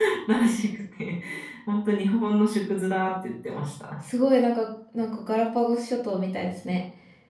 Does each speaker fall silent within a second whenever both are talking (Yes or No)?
Yes